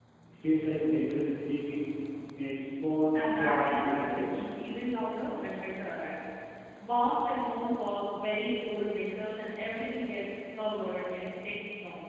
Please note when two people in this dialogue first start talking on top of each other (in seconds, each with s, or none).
3.1 s